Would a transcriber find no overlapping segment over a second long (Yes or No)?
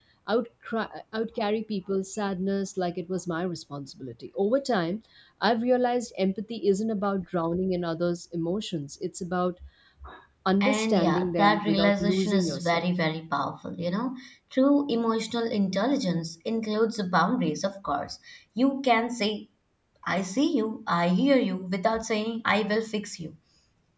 No